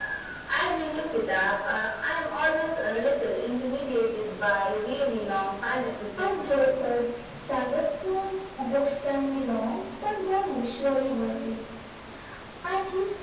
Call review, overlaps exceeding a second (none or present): none